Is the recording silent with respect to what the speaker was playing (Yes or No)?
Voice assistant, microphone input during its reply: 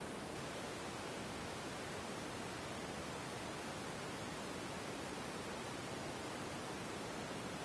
Yes